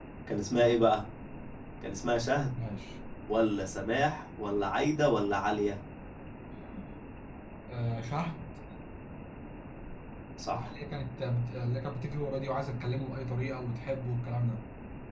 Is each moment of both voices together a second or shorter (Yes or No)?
Yes